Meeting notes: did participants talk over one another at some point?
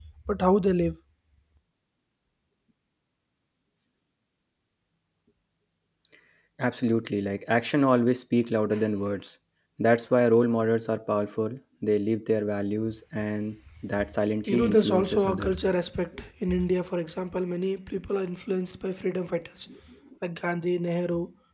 Yes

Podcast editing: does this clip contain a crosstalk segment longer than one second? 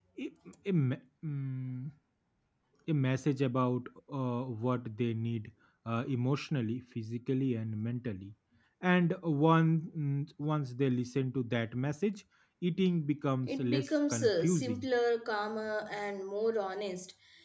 Yes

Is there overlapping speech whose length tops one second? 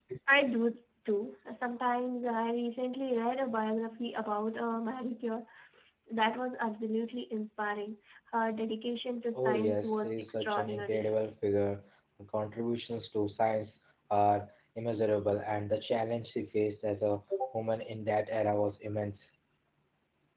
Yes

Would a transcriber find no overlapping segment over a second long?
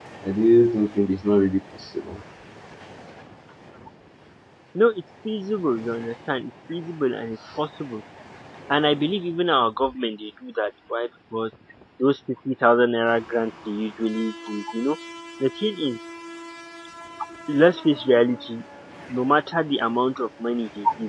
Yes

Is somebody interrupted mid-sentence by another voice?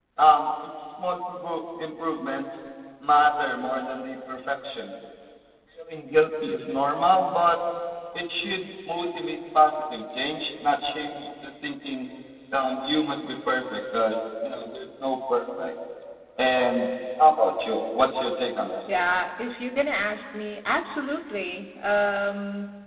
No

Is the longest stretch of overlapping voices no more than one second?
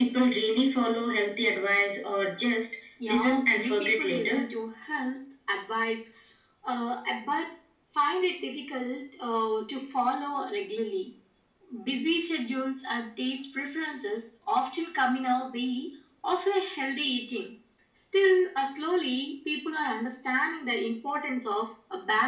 No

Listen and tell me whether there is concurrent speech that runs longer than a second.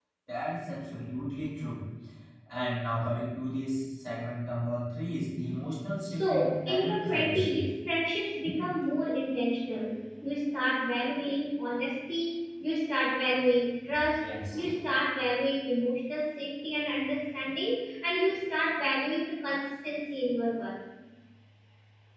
Yes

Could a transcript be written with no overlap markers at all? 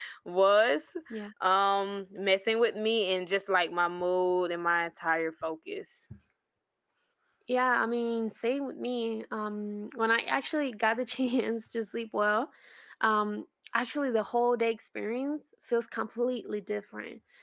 Yes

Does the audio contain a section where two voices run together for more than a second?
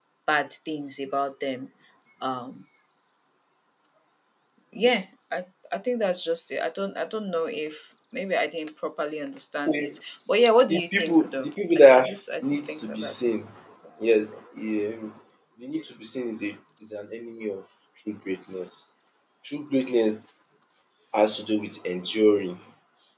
Yes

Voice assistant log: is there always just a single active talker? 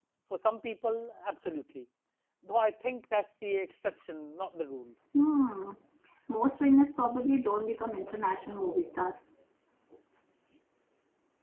Yes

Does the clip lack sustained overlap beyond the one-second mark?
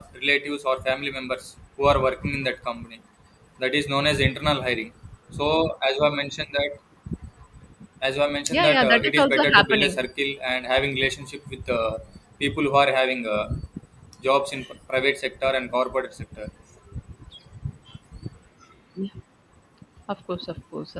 No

